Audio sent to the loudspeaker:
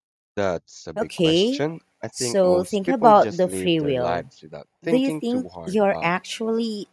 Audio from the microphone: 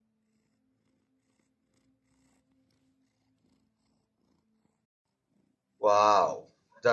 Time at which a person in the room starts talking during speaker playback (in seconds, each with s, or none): 5.8 s